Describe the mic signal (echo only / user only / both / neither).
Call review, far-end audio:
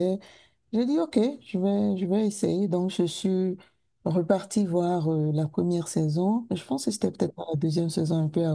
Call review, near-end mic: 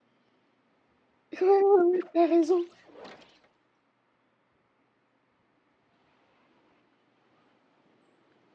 user only